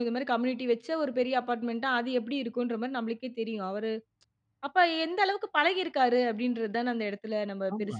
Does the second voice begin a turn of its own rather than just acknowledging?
Yes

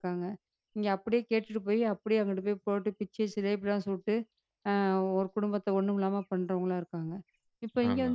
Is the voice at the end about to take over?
No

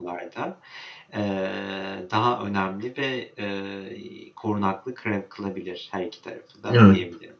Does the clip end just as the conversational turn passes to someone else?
Yes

